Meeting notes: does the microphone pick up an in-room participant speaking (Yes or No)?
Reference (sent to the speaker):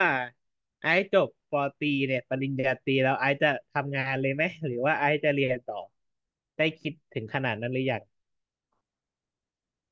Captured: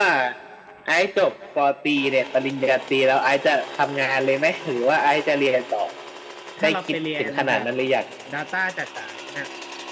Yes